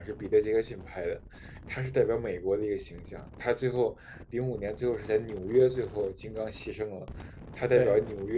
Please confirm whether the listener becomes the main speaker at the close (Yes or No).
No